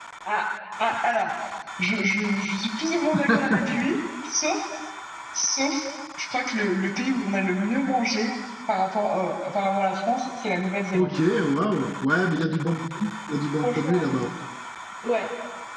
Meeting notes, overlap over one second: none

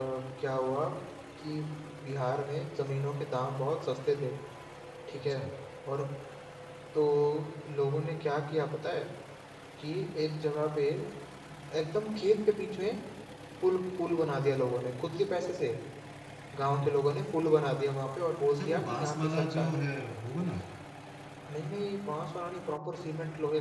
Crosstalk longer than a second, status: present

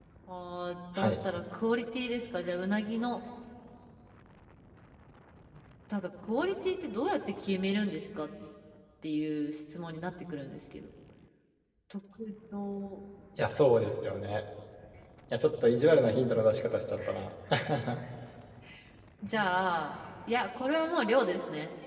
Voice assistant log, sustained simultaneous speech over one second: none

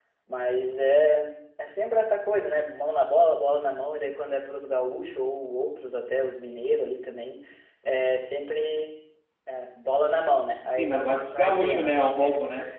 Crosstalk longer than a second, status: present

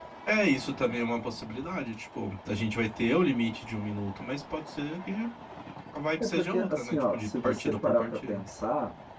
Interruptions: present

